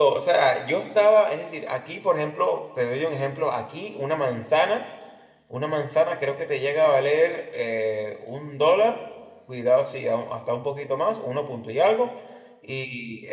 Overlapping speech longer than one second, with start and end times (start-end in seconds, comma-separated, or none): none